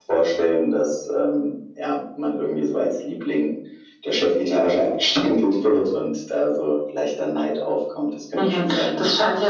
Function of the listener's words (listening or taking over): taking over